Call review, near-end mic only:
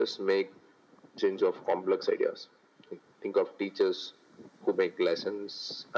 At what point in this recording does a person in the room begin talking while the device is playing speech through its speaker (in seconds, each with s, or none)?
none